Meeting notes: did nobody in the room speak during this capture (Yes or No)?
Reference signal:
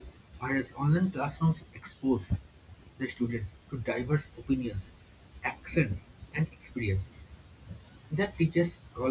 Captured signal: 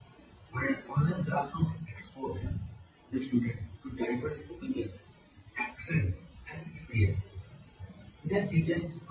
Yes